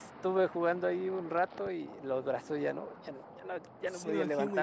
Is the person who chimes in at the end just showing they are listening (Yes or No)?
No